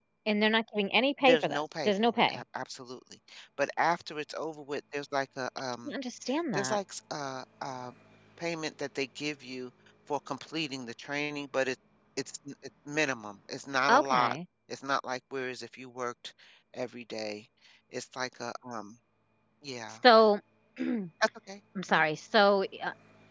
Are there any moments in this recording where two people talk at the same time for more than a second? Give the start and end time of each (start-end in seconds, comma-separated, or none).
1.2-2.4